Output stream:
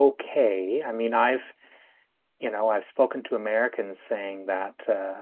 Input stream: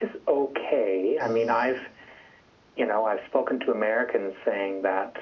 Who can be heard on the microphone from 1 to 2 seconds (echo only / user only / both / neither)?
both